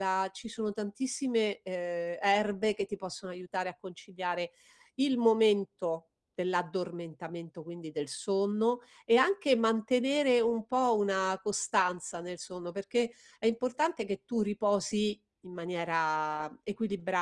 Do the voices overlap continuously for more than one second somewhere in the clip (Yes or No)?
No